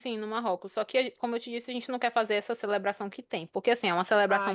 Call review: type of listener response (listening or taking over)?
listening